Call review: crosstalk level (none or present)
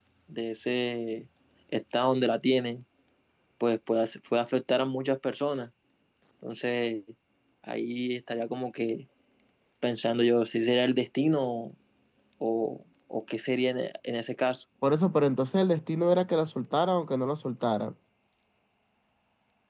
none